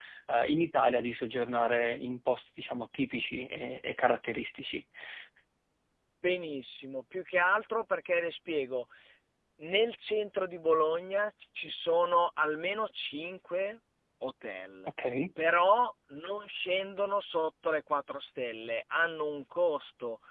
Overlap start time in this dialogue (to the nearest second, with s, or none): none